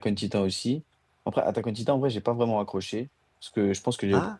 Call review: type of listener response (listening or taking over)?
listening